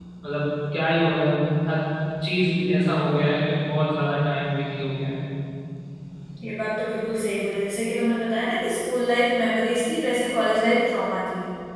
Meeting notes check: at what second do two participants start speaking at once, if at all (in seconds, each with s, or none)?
none